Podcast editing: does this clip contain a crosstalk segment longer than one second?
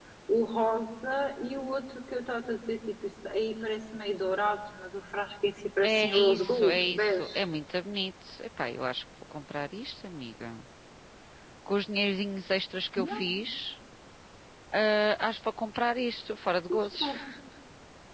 Yes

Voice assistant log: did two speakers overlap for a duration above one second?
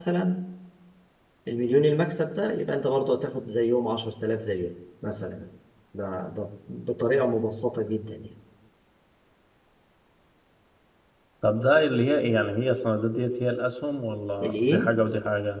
No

